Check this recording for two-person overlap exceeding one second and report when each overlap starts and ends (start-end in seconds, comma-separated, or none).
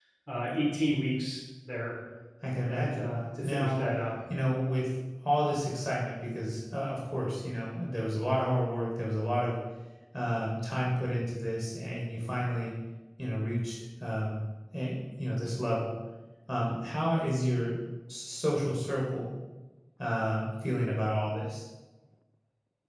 2.7-3.9